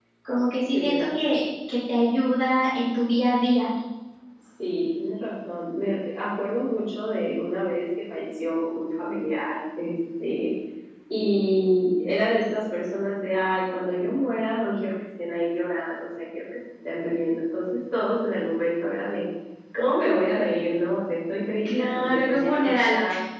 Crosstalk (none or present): present